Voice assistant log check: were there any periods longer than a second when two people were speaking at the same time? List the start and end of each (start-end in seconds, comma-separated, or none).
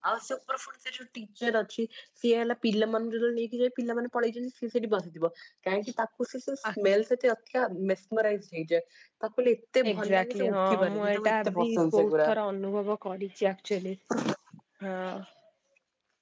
9.9-12.3